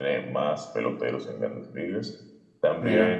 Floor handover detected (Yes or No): No